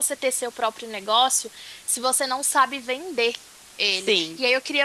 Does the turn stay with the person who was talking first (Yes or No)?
Yes